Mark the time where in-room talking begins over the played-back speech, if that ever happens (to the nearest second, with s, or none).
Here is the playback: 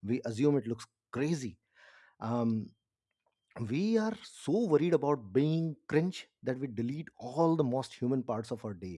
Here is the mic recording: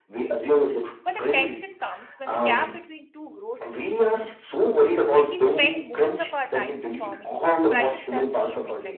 1 s